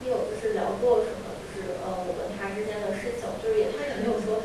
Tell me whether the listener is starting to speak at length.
No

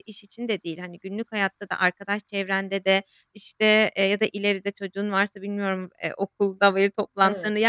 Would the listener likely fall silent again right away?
Yes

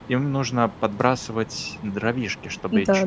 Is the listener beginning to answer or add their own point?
No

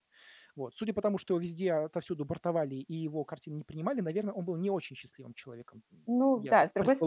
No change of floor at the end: No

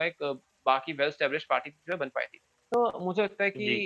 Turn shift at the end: No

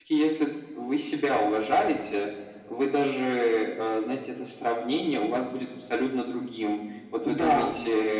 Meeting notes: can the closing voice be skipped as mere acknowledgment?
Yes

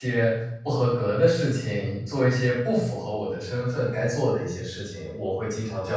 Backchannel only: No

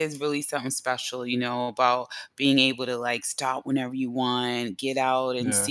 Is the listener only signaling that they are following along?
Yes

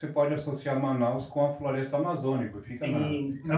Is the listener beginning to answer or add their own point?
Yes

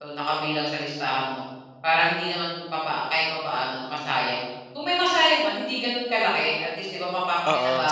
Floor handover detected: Yes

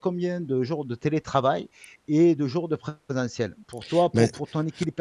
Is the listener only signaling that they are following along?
Yes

